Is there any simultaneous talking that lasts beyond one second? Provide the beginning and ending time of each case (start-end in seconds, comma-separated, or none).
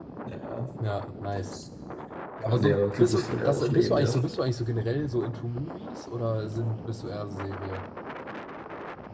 2.5-4.1